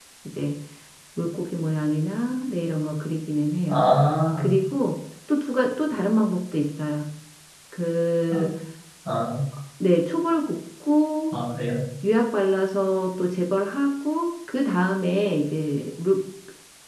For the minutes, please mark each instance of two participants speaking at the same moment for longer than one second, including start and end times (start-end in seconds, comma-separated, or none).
none